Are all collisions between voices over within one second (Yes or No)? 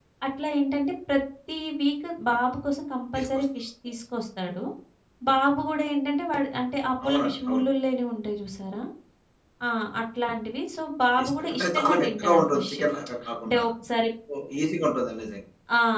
No